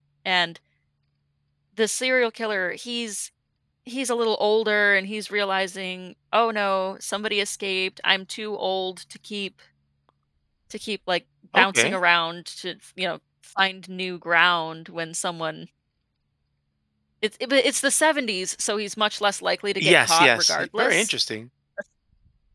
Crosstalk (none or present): present